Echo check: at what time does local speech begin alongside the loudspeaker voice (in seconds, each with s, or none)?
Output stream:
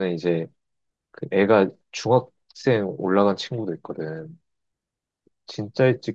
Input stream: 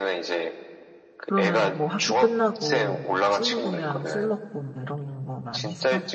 1.2 s